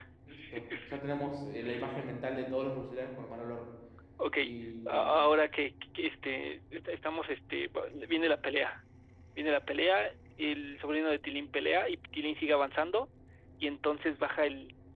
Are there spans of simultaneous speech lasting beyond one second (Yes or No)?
No